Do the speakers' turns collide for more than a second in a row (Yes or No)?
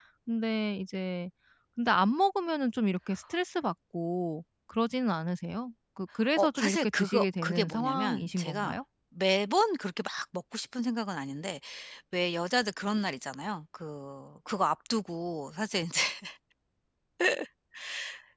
Yes